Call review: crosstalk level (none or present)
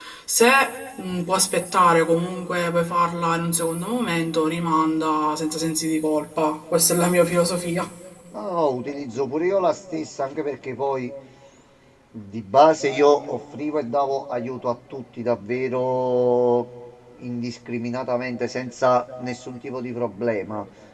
none